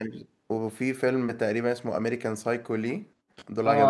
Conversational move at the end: taking over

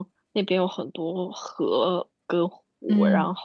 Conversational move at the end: listening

